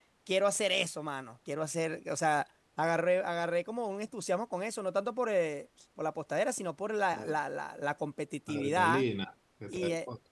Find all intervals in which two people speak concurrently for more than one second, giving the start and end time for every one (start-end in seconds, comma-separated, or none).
none